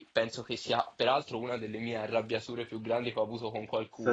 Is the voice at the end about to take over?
No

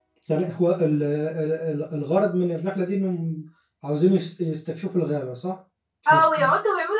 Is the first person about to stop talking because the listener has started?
Yes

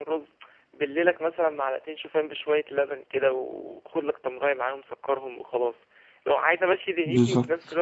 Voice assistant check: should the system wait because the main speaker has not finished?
Yes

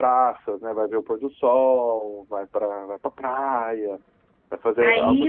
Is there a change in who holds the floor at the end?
Yes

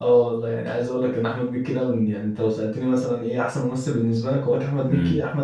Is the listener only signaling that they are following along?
Yes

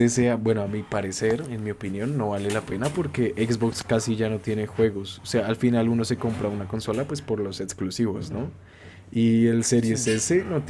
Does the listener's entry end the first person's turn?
No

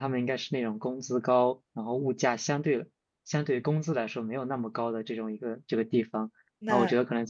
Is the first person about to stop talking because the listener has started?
No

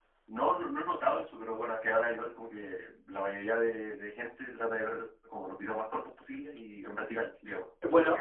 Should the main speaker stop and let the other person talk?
Yes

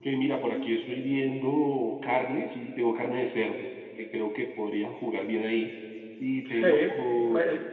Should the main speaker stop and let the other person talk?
Yes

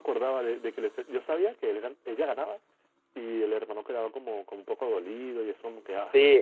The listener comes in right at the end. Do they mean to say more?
Yes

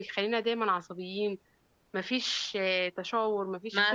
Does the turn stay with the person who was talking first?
No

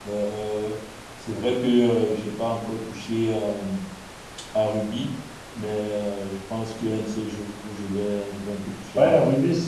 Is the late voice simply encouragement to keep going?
No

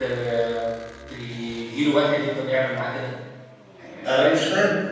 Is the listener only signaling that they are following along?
No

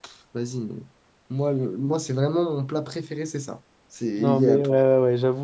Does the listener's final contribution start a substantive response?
Yes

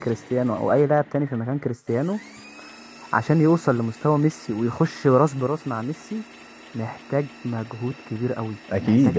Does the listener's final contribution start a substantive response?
No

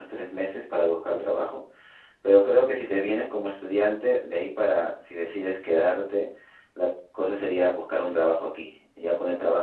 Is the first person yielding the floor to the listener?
No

